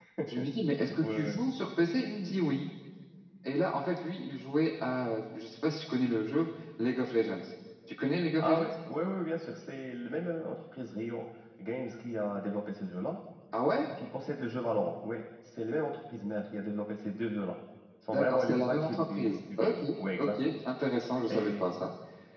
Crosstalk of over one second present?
Yes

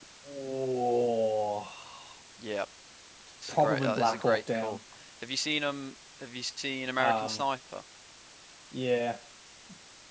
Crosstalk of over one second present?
Yes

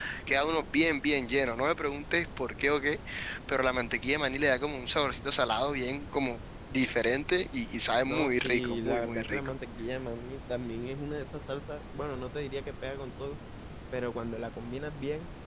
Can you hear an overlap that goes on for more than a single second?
Yes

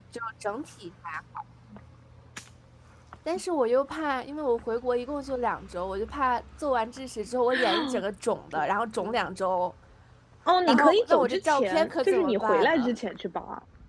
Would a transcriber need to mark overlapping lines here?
Yes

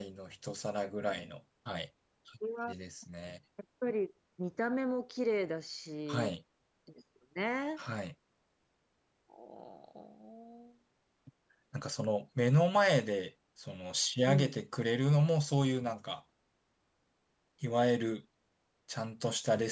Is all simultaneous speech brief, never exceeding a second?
Yes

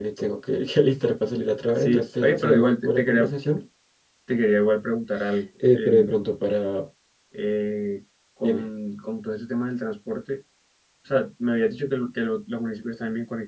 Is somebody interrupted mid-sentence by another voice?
Yes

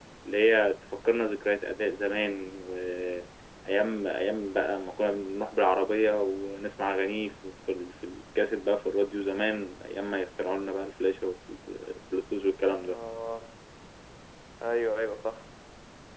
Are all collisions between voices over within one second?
Yes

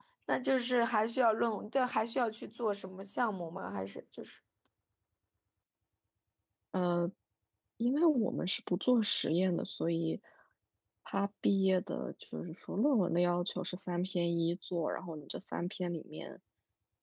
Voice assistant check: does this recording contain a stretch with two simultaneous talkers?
No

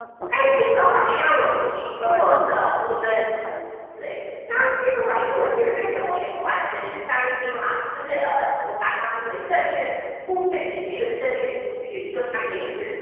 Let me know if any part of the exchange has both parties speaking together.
Yes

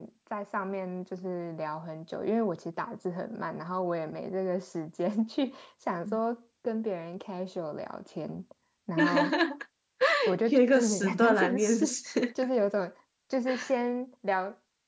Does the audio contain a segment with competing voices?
Yes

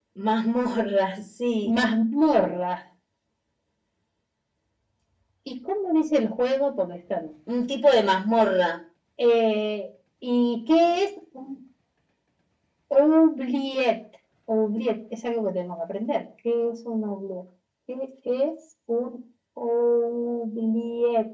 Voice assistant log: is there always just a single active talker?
Yes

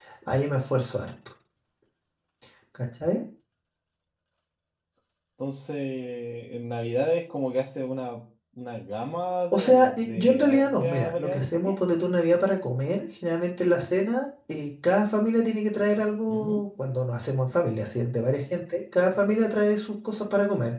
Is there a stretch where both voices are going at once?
Yes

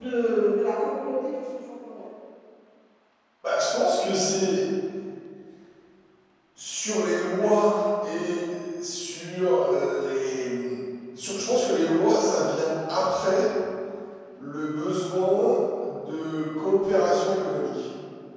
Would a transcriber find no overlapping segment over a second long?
Yes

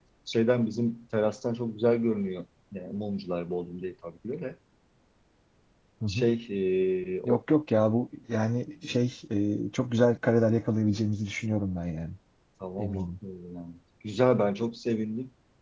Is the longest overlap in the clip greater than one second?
No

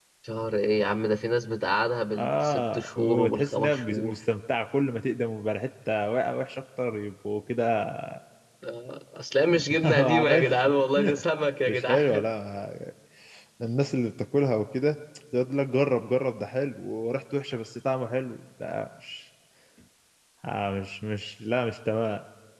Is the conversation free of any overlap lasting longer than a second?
No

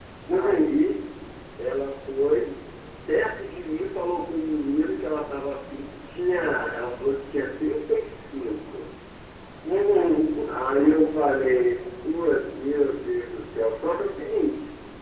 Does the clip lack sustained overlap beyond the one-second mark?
Yes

